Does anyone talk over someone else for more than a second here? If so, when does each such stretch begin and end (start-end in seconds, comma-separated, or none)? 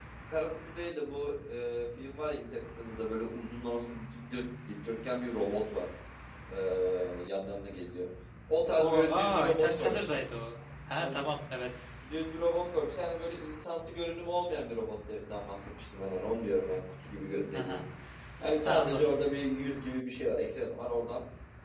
8.8-10.2